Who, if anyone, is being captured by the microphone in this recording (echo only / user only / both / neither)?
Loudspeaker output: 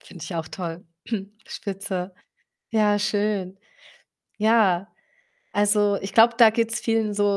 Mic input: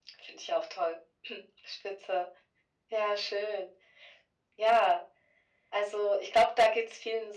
echo only